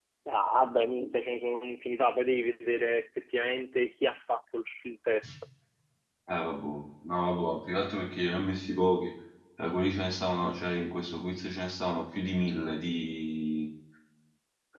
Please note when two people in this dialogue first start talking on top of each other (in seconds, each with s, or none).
none